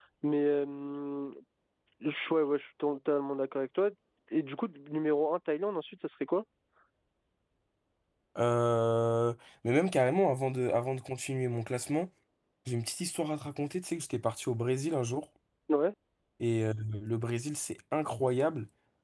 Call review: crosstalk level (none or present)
none